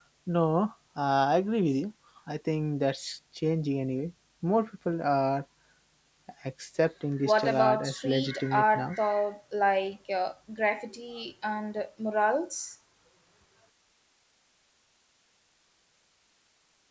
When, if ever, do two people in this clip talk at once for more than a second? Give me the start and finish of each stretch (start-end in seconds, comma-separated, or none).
7.2-8.9